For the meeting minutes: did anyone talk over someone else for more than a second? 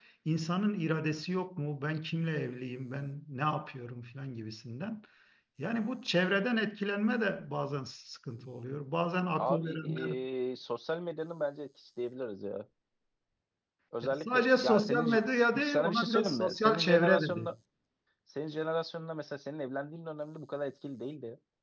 Yes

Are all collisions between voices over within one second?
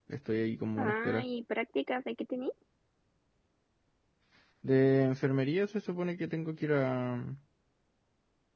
Yes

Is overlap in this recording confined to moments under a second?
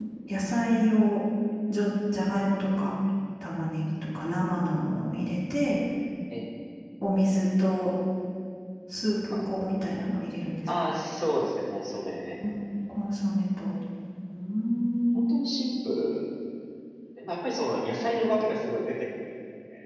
Yes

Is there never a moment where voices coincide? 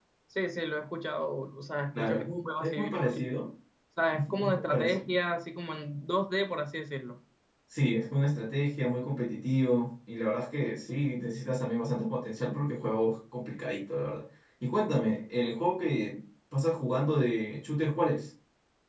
No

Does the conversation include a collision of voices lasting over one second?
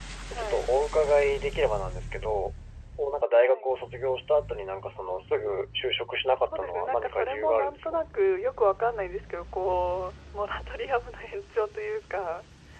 Yes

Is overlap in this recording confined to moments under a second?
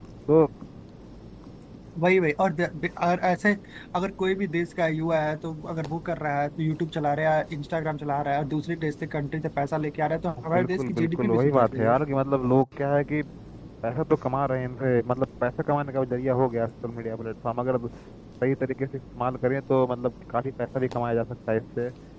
No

